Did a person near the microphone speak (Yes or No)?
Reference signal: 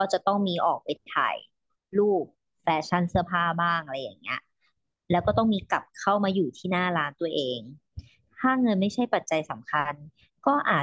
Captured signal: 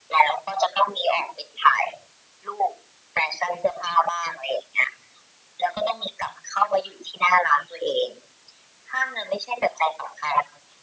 No